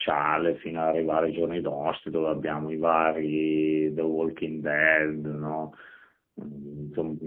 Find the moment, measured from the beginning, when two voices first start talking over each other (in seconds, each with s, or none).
none